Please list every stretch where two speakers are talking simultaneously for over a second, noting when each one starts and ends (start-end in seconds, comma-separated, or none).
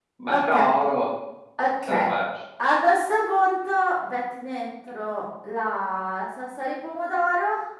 none